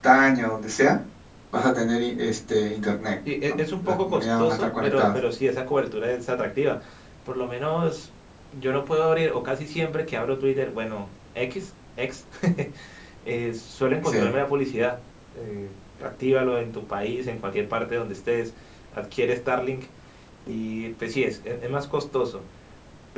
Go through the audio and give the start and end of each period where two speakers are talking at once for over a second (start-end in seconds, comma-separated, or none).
3.5-5.1